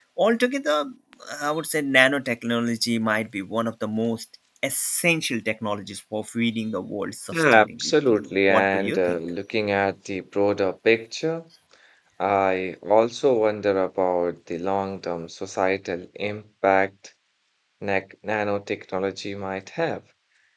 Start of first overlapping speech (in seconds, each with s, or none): 7.3 s